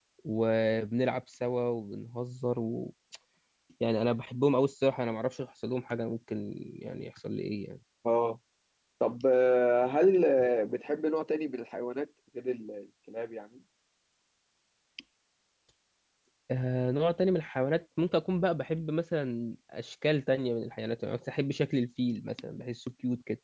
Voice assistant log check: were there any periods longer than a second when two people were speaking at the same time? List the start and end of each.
none

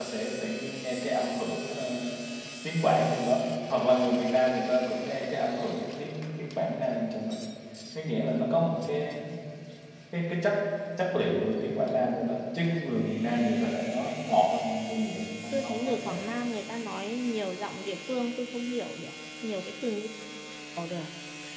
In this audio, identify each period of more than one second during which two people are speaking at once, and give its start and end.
14.9-16.2

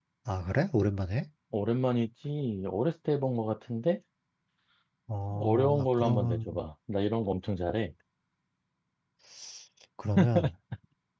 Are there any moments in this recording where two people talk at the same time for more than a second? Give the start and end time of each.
5.3-6.6

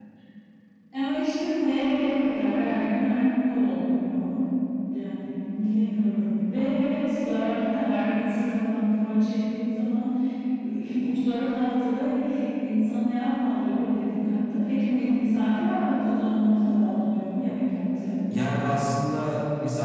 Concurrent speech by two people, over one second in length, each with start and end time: none

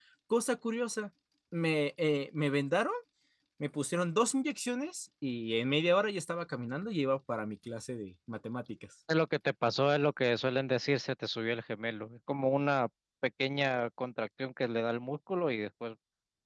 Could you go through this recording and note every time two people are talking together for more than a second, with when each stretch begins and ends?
none

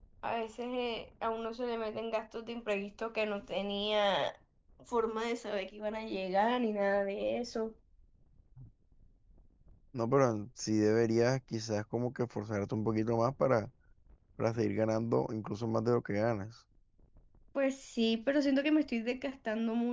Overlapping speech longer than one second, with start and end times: none

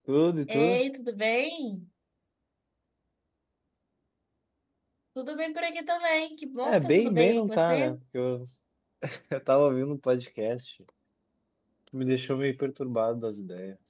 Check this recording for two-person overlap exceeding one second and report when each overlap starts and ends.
6.6-8.0

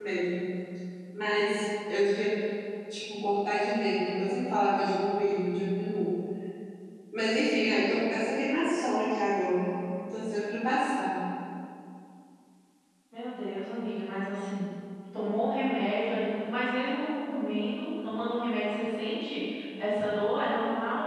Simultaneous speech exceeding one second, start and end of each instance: none

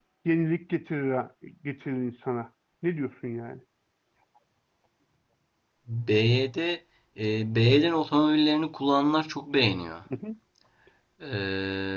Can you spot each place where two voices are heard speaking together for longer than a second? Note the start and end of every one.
none

